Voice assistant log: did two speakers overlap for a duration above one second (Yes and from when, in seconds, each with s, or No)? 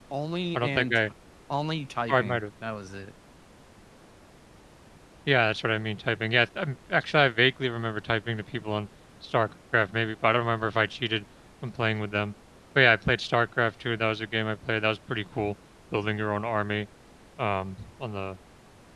No